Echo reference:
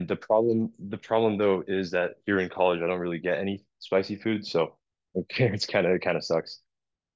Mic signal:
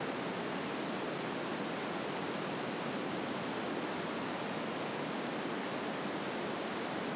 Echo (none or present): none